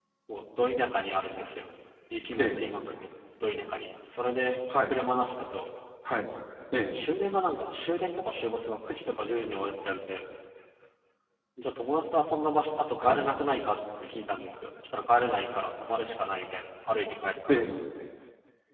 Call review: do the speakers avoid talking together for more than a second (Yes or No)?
Yes